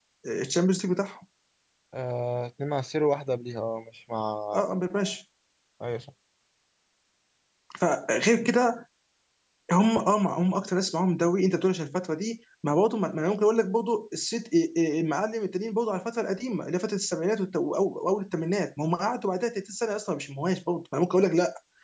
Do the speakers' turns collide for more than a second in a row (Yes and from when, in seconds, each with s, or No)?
No